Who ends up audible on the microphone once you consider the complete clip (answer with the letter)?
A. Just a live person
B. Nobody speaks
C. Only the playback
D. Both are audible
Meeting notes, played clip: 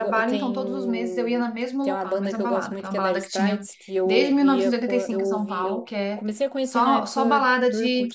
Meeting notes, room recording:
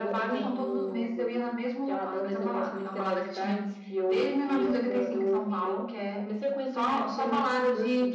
C